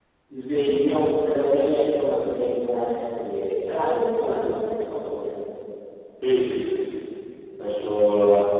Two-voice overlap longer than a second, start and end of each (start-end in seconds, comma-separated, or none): none